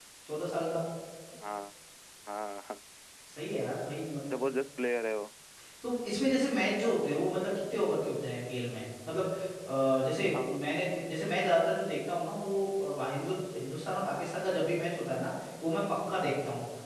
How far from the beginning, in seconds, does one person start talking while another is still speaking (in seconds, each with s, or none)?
none